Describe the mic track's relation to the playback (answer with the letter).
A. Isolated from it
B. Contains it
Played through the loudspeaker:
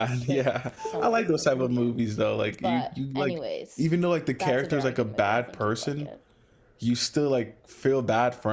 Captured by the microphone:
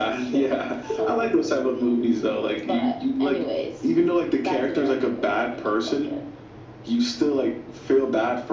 B